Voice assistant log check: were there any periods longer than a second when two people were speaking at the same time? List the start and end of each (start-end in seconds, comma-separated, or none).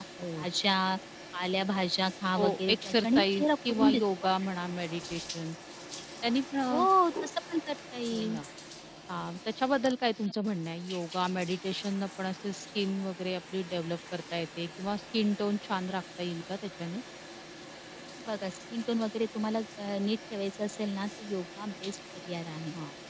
2.4-4.0